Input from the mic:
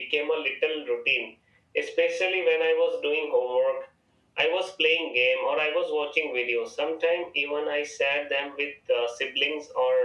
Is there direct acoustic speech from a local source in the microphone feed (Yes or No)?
No